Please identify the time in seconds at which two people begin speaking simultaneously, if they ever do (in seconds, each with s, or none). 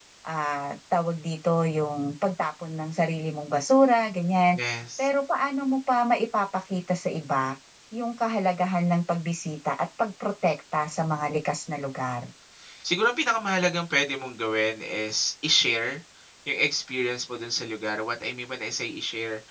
none